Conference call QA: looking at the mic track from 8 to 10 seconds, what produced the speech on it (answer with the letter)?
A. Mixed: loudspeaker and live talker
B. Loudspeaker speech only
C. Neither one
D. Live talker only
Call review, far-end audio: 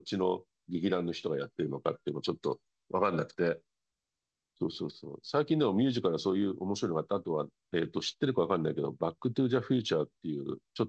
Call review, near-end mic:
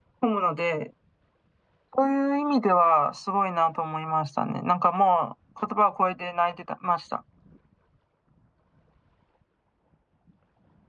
C